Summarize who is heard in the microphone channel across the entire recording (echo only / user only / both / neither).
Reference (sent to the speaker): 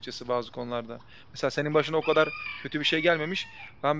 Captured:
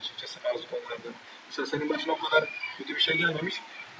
echo only